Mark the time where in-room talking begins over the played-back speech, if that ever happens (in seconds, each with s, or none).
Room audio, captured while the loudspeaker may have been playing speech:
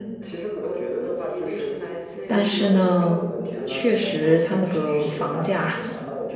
2.3 s